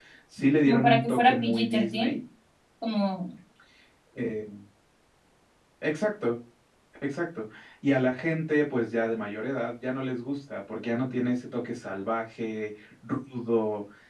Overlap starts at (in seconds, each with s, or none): 0.6 s